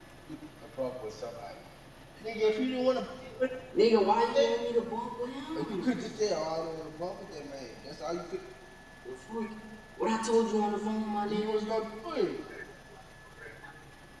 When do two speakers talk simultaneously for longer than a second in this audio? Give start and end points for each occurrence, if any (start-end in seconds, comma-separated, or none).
none